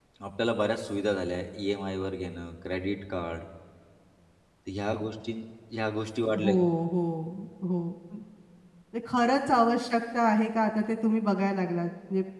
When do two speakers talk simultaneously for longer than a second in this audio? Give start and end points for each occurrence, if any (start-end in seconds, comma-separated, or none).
none